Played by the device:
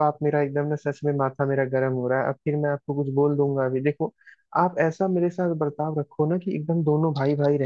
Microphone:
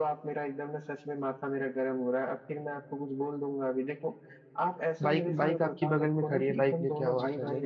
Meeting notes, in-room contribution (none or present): present